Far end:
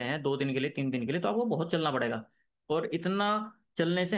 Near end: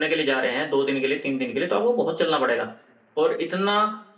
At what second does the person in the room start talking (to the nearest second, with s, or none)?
none